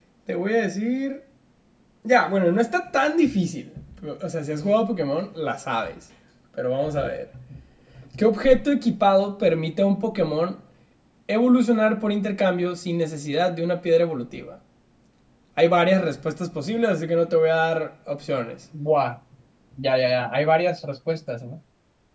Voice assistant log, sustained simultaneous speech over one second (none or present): none